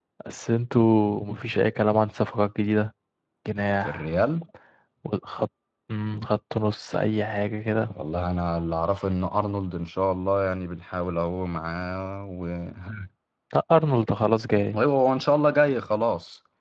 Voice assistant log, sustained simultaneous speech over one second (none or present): none